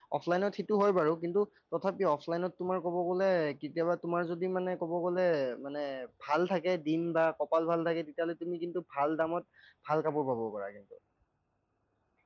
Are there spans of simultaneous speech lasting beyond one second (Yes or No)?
No